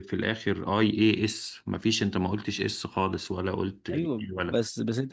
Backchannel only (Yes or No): No